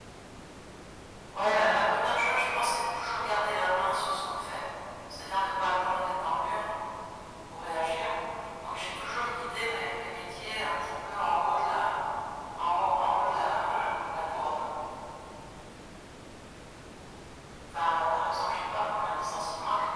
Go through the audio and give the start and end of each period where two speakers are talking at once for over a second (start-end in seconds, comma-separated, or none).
13.2-14.6